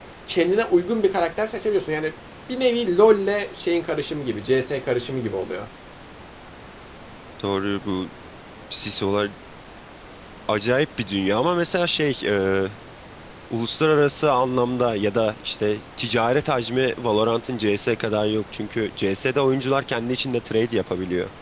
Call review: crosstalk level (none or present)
none